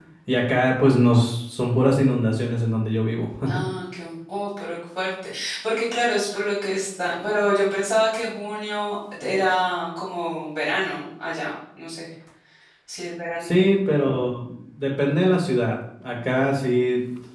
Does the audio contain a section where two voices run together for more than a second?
No

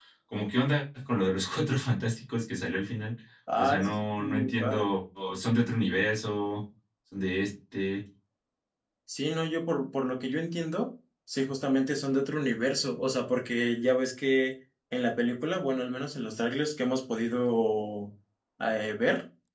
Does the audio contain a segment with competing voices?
Yes, from 3.6 s

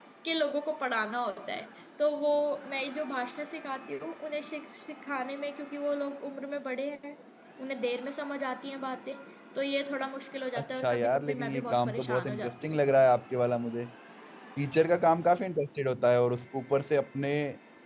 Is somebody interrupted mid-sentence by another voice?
Yes, from 10.6 s

